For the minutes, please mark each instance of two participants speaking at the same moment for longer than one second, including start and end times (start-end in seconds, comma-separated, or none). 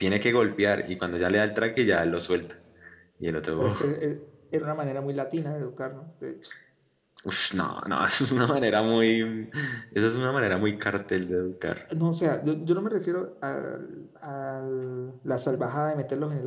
none